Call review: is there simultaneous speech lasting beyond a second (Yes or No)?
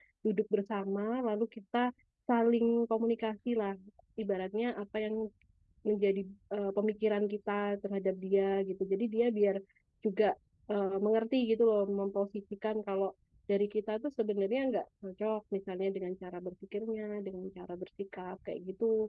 No